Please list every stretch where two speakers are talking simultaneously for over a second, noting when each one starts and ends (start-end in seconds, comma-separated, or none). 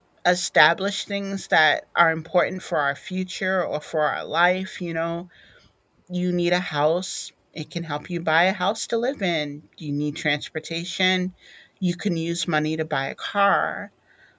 none